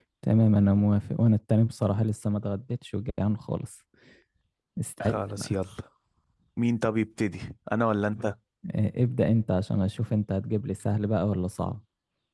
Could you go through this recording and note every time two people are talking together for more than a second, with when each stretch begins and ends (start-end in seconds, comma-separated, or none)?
none